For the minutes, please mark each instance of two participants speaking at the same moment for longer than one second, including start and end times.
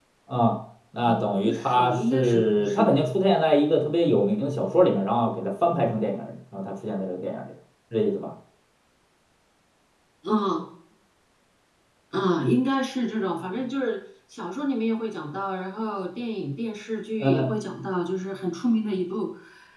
1.1-3.0

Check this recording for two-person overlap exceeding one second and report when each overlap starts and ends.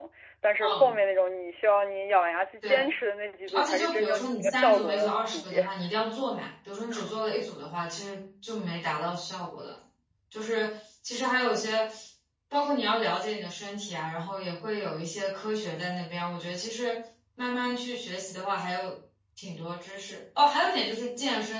3.5-5.7

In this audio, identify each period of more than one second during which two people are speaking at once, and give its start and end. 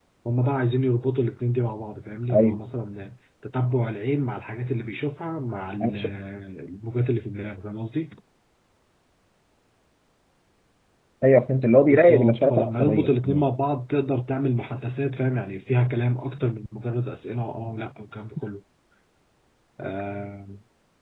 11.9-13.4

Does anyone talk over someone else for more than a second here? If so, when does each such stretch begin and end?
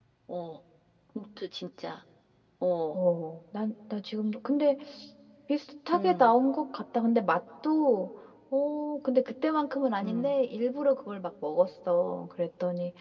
none

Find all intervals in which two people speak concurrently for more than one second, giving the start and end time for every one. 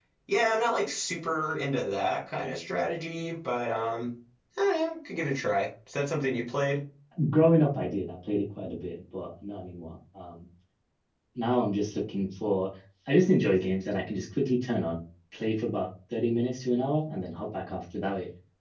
none

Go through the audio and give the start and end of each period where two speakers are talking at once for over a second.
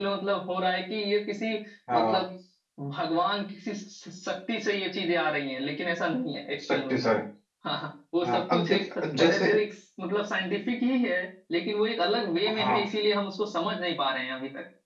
8.2-9.5

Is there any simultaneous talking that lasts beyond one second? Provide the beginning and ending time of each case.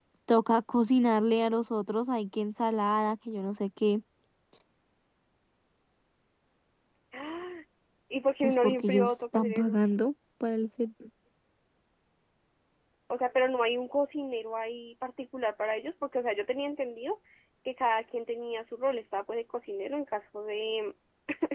8.4-9.8

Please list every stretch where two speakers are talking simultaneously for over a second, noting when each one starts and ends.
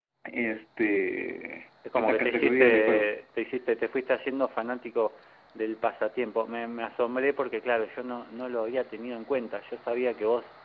1.9-3.2

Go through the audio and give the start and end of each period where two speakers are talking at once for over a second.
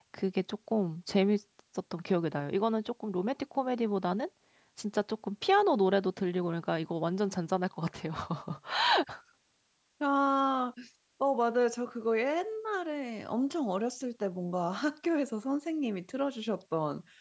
none

